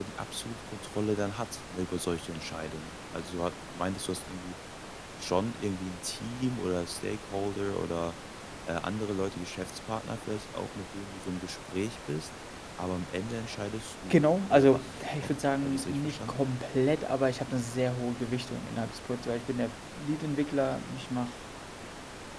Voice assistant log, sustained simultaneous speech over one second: present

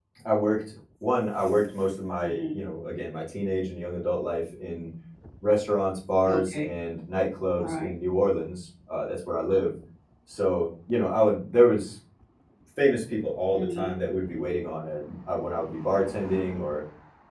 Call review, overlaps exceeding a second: none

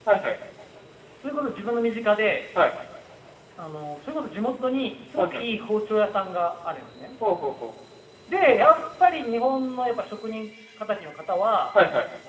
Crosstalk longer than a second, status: none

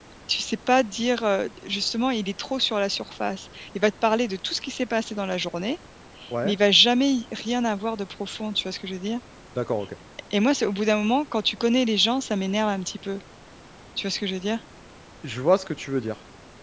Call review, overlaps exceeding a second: none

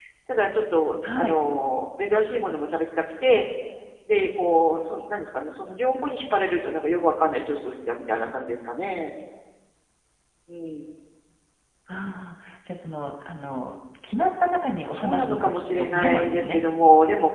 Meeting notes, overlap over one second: present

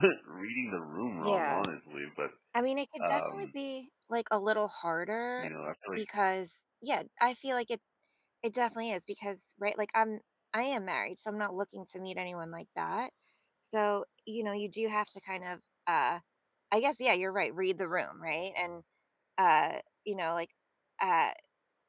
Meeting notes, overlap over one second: none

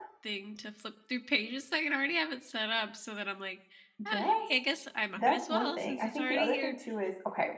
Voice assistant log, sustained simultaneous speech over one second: present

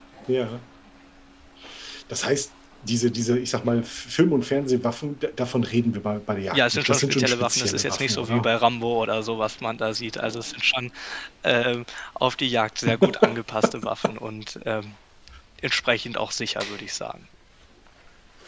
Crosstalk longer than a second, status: present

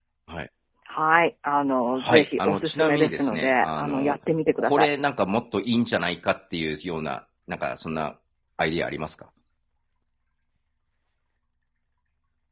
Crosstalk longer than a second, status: present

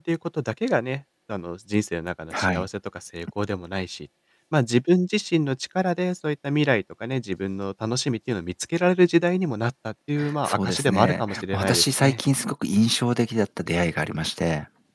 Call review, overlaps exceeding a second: present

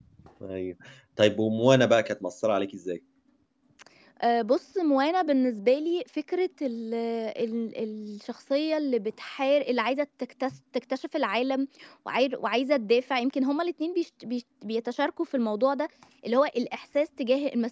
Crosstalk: none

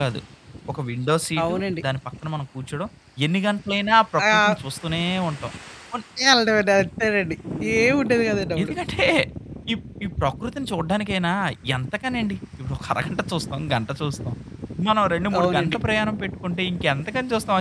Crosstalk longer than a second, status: none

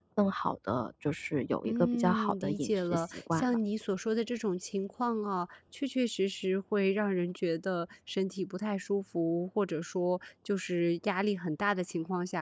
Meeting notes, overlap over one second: present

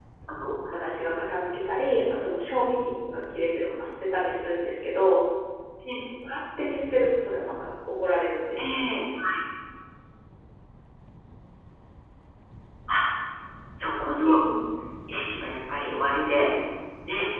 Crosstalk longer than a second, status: none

